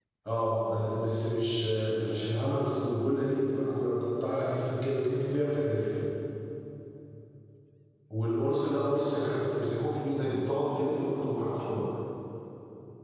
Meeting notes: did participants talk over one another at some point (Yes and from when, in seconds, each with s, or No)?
No